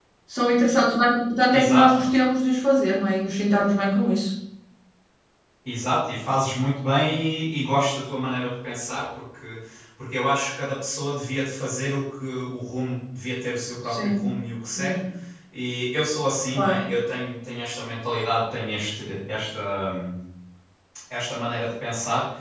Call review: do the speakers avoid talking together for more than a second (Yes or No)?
Yes